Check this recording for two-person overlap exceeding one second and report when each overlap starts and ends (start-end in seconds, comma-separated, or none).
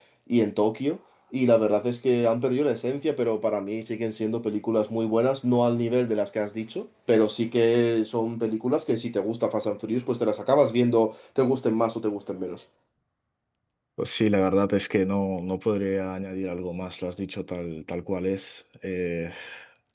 none